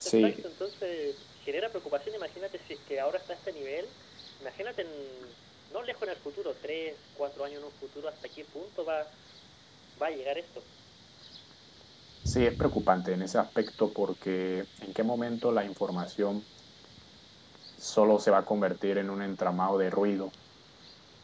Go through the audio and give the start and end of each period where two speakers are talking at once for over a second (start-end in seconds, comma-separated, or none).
none